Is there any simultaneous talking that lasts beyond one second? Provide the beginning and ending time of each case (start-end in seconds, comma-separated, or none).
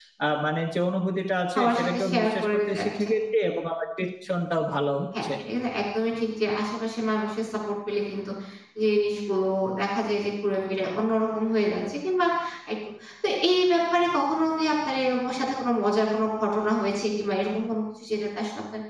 1.6-3.1